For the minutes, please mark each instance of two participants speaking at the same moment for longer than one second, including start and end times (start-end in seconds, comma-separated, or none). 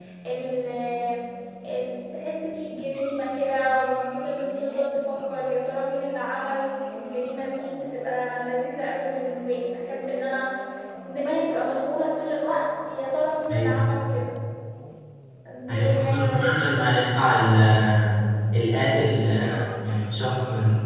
15.7-17.3